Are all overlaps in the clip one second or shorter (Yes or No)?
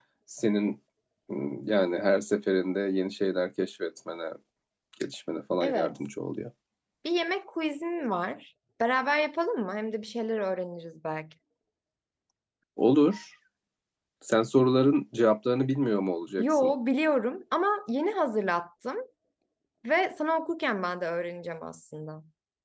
Yes